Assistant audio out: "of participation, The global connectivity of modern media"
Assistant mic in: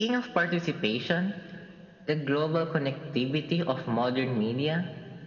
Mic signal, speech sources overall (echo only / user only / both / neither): echo only